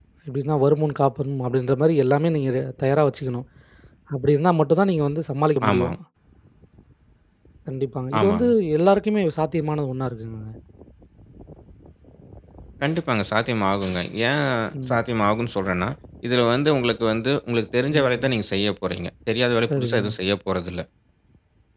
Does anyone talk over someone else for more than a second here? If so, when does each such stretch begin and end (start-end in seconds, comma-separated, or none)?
none